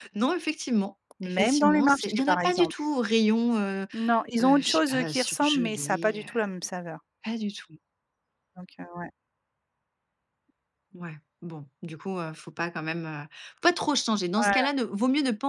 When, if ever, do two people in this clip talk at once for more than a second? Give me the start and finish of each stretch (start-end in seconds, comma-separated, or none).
1.2-2.7, 4.4-6.4